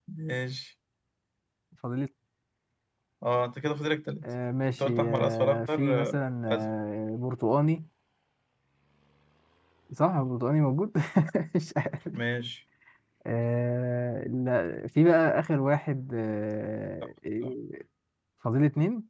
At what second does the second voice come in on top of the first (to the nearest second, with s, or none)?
5 s